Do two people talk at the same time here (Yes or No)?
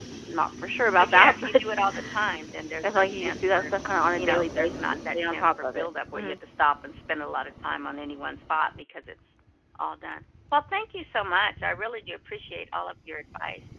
Yes